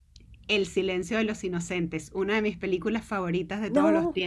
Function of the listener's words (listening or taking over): taking over